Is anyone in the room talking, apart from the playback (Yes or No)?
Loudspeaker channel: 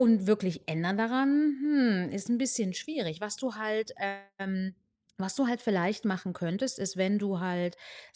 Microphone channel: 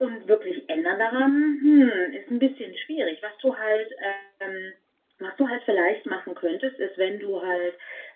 No